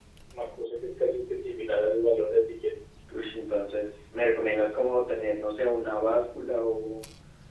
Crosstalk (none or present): none